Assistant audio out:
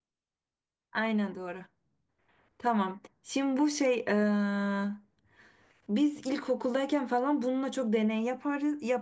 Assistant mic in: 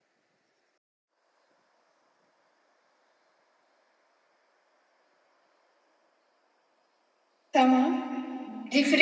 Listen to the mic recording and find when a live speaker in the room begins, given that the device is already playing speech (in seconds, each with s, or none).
7.5 s